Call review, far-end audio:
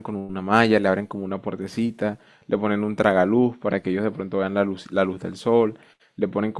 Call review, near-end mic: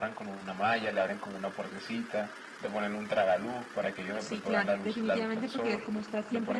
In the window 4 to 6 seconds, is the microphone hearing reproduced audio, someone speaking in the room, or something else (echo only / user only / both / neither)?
both